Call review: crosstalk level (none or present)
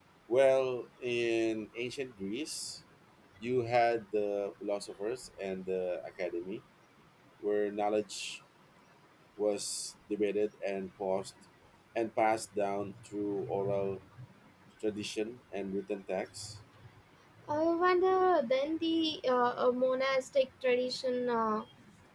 none